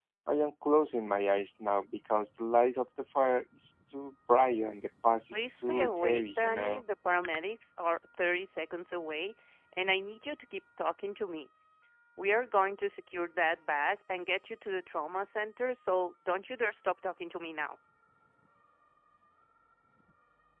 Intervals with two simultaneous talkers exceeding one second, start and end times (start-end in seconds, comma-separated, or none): 5.3-6.8